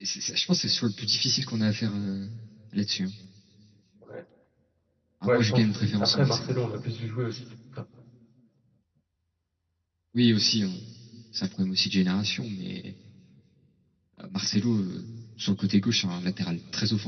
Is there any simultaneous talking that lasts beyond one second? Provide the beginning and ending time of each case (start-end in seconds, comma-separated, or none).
5.2-6.6